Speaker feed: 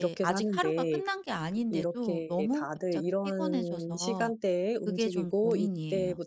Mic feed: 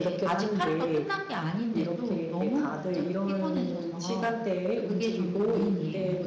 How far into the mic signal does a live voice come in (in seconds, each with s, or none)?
none